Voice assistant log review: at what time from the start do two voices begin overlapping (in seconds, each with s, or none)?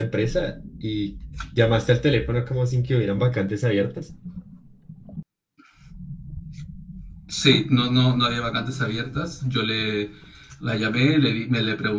none